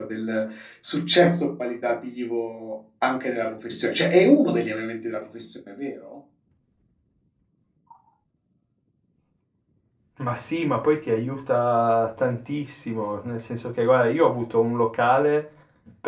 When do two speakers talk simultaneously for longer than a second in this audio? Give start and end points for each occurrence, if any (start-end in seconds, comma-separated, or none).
none